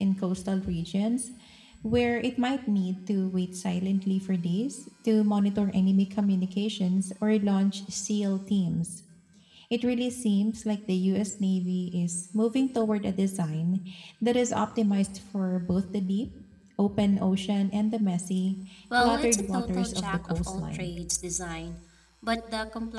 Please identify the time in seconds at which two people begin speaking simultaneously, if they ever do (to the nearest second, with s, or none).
19 s